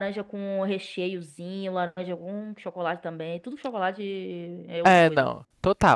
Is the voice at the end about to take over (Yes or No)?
Yes